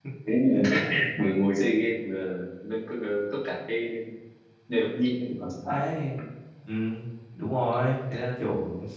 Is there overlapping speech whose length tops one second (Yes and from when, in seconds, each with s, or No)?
No